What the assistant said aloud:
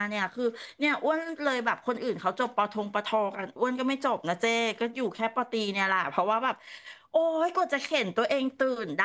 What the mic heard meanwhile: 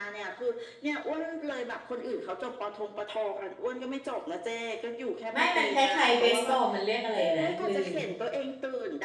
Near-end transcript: ไม่มันคล้ายๆเบสบอลมันเรียกอะไรนะลืม

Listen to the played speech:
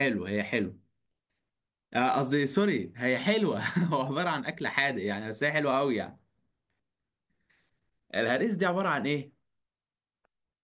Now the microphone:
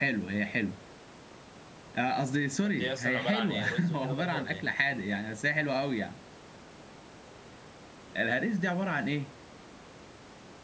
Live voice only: طب دي اصلا عباره عن ايه رز وكده برضه ولا ايه

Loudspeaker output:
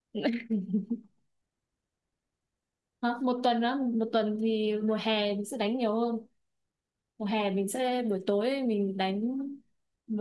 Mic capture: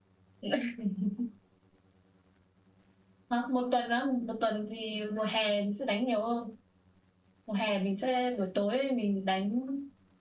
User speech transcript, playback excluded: none

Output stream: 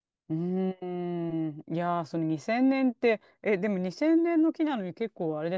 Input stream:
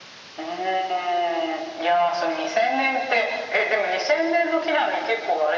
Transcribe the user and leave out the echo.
none

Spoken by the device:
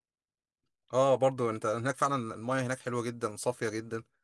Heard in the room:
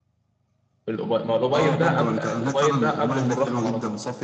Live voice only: الأبي- ما الأبيض ده قبل الأبيض ده قبل أم الرخم على طول

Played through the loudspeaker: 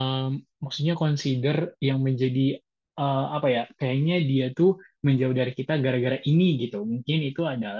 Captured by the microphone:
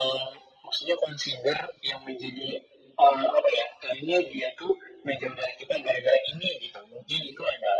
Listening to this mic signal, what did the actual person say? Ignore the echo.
none

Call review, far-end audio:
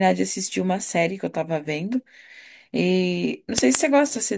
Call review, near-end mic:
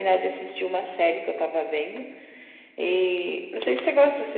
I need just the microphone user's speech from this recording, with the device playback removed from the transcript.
none

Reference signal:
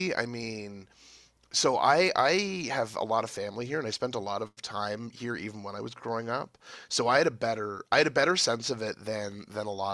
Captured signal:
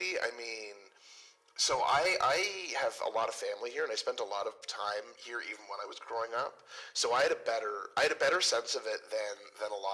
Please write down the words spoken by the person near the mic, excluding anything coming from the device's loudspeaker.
none

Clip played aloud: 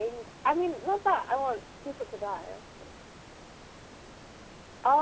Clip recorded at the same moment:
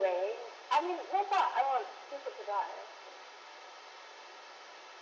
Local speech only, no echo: none

